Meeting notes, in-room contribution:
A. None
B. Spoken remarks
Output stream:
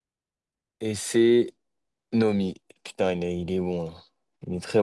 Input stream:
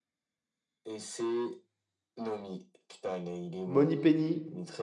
B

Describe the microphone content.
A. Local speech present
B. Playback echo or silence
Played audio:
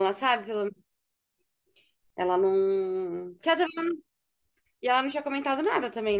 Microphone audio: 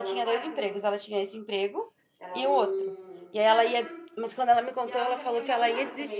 A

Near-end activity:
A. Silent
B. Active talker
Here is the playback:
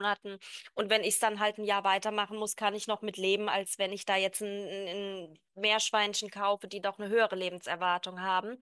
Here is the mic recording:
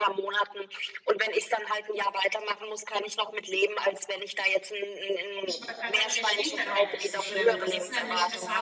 B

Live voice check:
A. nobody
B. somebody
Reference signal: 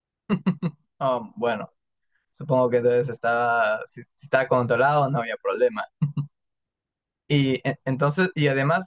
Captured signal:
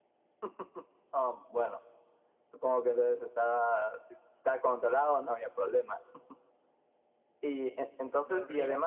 B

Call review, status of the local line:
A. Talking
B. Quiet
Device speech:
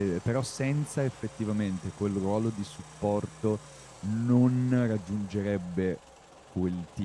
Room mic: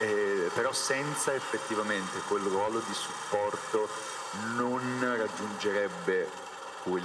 B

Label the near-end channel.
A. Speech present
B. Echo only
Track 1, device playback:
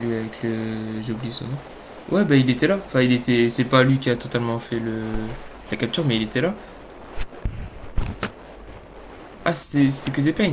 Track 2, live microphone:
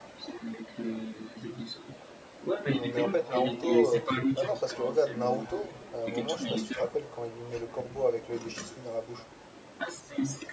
A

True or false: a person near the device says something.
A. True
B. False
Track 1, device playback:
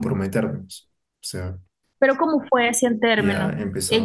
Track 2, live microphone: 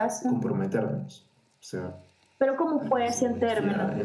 A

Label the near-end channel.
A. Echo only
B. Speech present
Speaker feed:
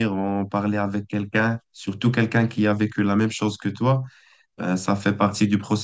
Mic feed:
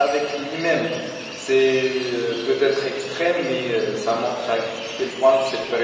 B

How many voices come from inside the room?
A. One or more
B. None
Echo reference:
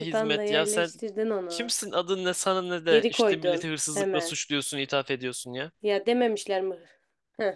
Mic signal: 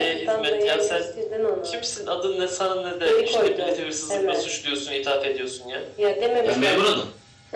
A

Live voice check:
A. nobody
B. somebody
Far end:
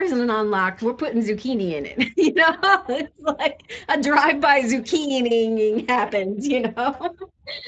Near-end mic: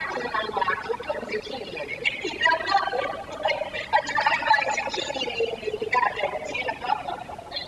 A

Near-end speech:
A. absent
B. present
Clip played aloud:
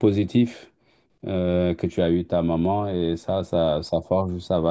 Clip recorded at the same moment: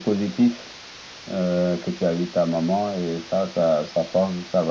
A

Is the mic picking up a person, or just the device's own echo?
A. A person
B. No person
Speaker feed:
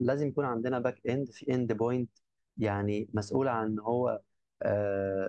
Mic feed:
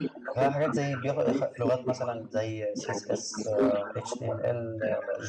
A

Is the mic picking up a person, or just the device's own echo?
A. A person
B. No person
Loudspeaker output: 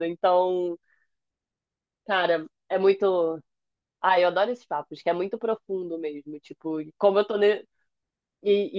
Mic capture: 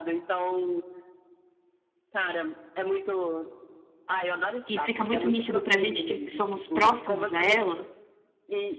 A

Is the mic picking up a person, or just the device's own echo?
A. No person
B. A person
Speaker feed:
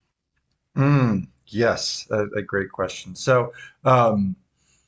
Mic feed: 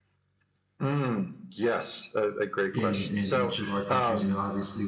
B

